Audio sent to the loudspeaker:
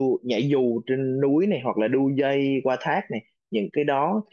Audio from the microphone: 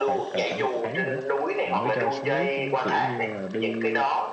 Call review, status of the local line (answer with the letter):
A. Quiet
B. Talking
B